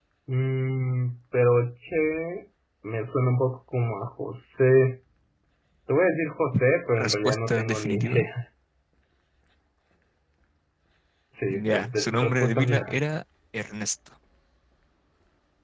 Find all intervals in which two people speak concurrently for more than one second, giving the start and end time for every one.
7.0-8.3, 11.5-13.0

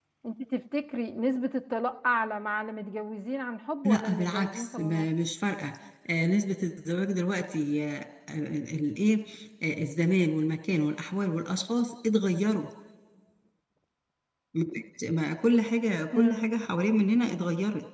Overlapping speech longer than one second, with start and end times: 3.8-5.1

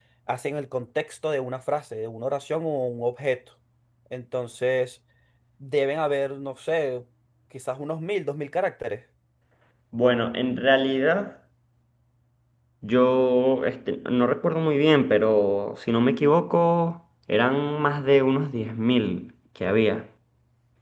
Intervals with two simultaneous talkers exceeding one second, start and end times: none

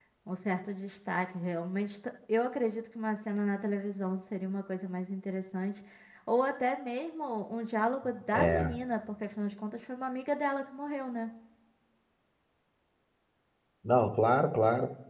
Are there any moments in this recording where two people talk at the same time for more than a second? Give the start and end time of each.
none

